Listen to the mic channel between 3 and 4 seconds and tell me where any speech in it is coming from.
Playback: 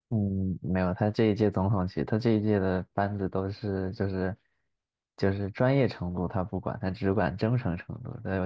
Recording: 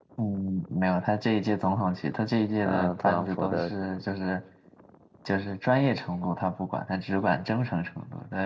both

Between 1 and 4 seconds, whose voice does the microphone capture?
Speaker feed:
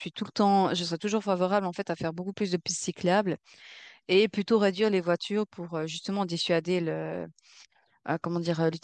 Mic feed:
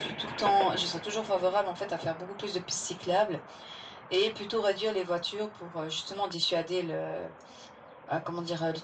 echo only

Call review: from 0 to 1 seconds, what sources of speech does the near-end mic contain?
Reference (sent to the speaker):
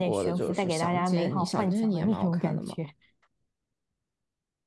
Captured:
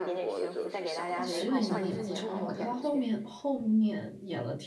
echo only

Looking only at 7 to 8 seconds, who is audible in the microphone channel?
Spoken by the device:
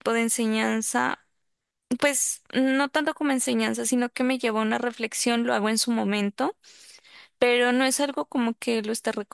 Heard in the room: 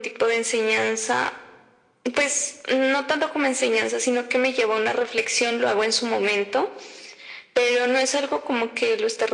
echo only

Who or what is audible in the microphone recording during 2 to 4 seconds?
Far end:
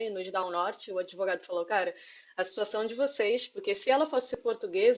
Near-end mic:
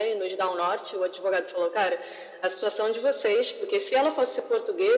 echo only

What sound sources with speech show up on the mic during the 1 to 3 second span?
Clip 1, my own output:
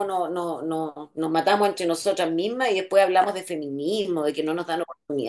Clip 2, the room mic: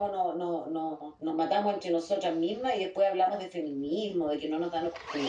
echo only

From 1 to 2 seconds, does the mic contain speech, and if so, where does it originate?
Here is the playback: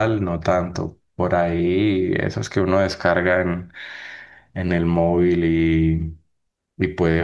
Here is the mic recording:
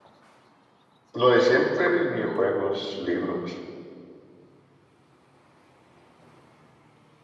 user only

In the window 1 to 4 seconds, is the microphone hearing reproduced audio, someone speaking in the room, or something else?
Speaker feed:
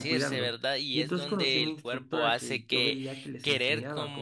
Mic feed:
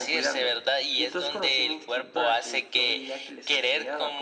echo only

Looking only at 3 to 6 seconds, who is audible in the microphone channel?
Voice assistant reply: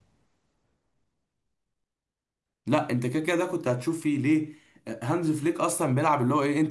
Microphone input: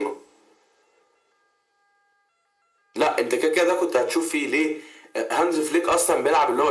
echo only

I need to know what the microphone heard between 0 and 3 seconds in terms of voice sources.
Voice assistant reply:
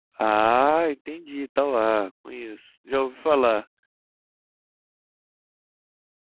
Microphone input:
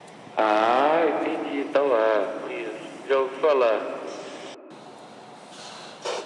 echo only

